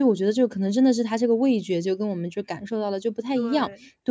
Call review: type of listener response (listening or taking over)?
listening